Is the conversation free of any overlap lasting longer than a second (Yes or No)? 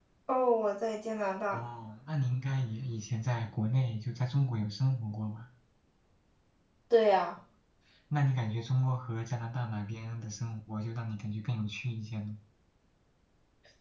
Yes